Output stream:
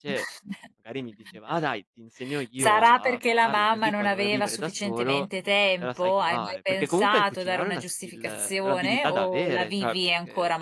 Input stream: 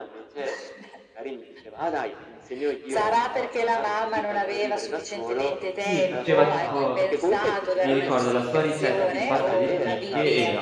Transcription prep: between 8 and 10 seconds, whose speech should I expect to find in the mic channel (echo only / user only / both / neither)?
both